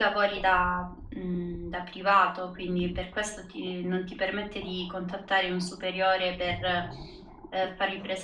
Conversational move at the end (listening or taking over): taking over